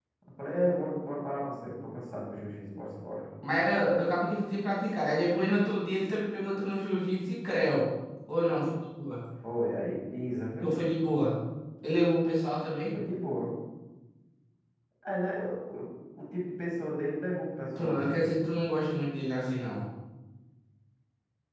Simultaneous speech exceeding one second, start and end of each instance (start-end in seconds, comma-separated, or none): none